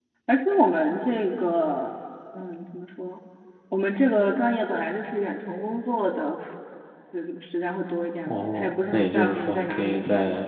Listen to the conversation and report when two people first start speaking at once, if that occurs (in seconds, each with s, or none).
8.3 s